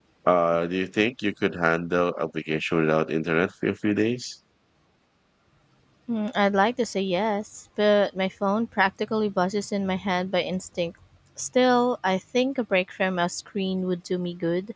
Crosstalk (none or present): none